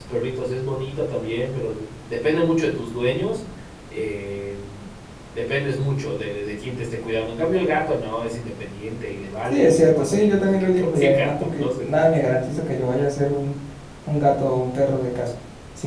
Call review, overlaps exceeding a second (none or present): present